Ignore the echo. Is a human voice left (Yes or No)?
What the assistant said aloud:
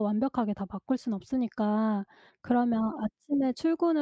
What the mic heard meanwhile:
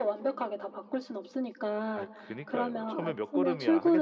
Yes